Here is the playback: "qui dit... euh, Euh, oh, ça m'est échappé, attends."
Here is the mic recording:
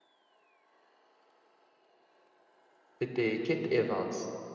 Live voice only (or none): c'était Kate Evans.